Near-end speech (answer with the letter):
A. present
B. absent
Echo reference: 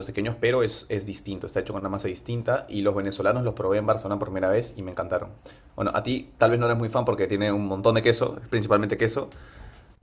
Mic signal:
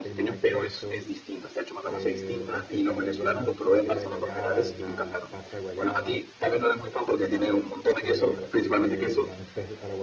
A